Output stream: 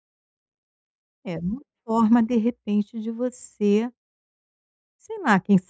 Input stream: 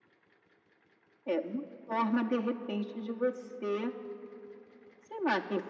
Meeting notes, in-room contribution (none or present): none